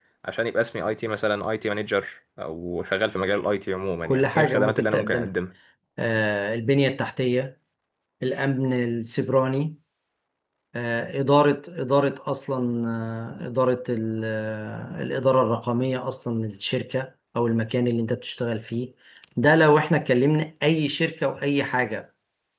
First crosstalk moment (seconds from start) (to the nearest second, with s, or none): 4 s